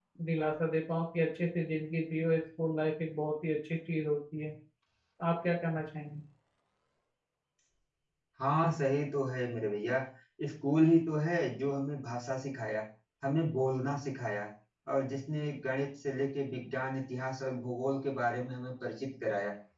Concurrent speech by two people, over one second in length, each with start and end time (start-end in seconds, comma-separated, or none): none